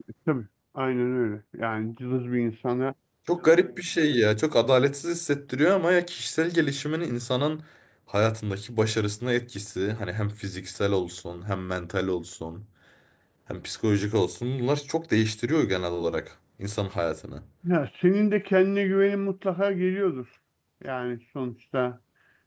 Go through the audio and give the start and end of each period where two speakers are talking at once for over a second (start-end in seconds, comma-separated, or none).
none